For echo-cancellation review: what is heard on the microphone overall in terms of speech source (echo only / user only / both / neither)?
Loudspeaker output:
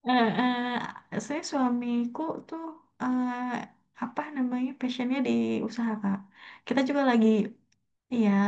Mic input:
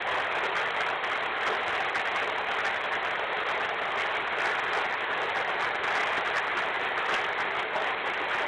neither